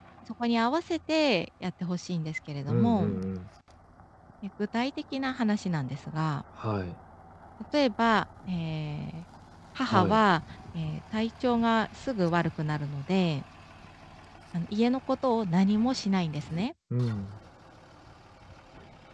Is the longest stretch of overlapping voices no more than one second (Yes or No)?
Yes